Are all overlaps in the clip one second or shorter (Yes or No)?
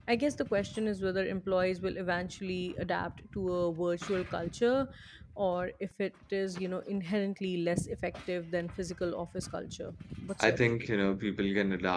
Yes